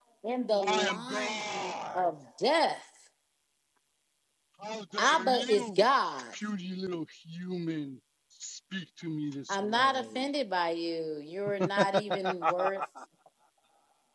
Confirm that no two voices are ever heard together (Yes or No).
No